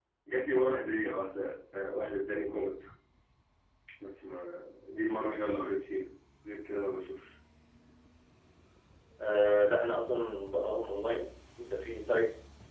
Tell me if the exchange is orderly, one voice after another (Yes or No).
Yes